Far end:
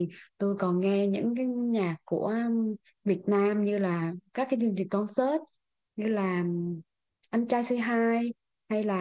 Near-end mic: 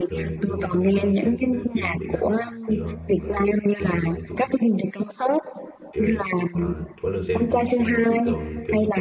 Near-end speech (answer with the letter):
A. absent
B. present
B